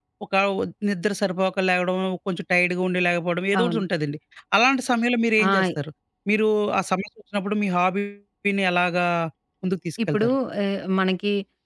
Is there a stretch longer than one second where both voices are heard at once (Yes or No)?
No